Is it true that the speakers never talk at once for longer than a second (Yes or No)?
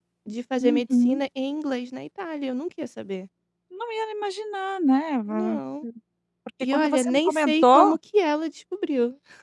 No